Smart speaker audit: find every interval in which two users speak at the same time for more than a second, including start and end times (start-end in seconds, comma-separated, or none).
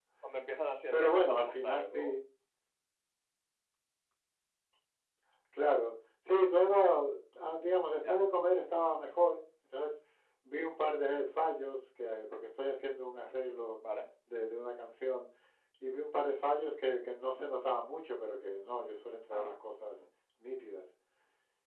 0.9-2.1